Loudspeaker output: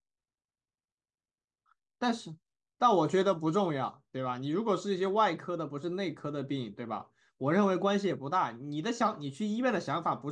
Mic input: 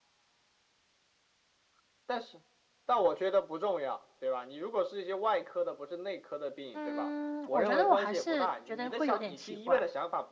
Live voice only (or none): 嗯，我觉得我还是觉得会有点奇怪。